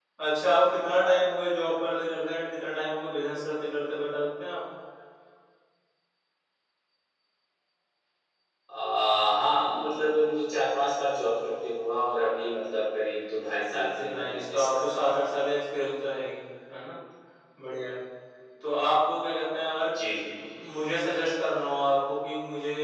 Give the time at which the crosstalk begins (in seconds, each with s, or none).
13.8 s